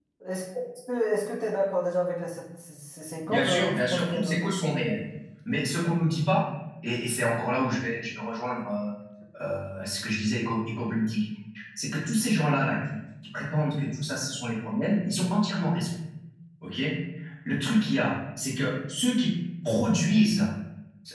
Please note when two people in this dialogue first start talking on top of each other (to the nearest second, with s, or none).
3 s